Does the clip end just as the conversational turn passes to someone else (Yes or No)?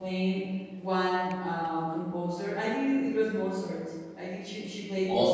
No